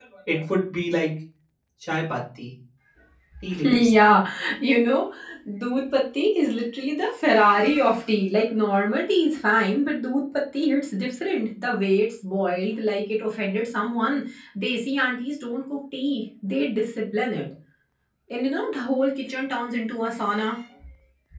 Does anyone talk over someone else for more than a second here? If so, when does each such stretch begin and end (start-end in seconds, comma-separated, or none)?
none